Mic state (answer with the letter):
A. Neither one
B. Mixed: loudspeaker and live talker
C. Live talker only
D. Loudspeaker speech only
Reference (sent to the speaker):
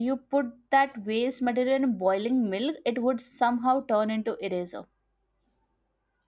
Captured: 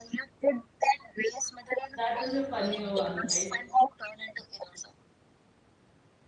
B